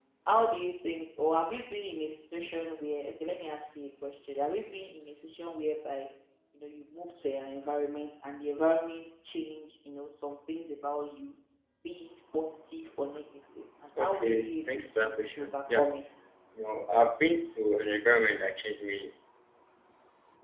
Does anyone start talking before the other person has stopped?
Yes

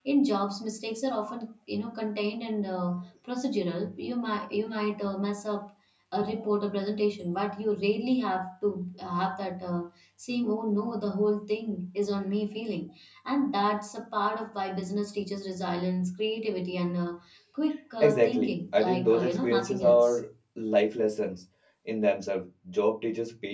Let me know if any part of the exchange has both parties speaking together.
Yes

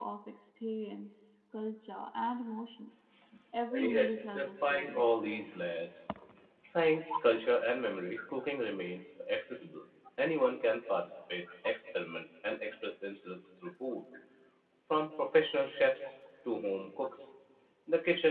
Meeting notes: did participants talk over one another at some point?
Yes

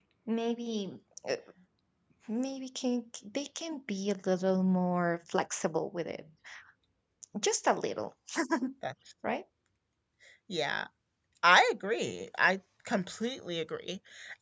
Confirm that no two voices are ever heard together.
Yes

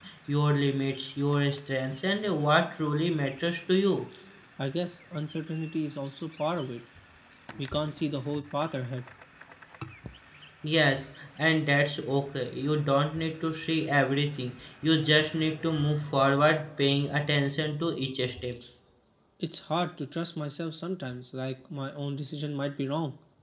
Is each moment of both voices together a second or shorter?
Yes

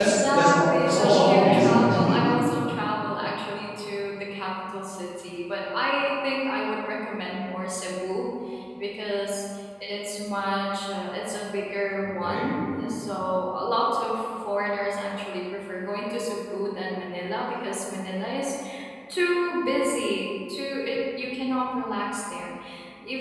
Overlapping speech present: Yes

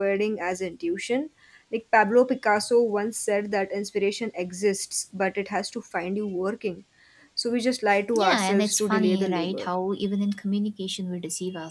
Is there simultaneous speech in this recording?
Yes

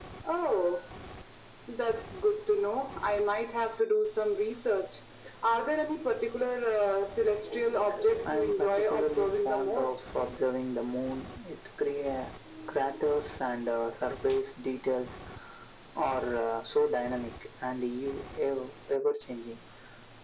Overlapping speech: Yes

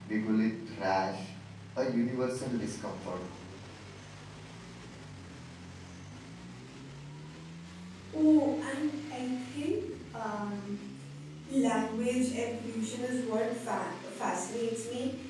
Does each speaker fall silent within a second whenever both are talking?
Yes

